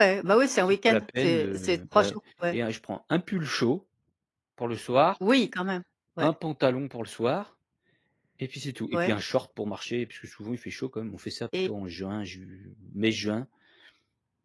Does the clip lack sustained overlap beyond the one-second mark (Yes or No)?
No